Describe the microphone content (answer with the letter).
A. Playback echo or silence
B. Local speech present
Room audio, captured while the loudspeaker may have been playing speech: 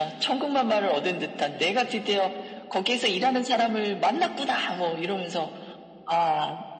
A